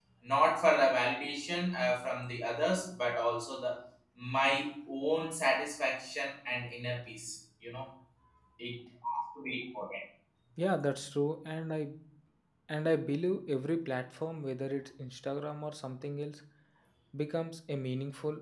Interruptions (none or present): none